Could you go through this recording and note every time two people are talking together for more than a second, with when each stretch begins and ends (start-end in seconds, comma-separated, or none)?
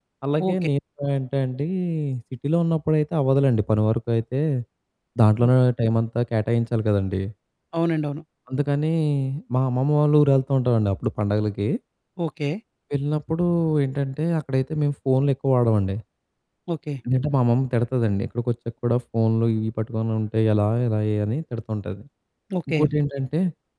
none